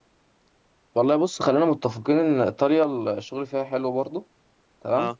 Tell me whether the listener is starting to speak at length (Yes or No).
No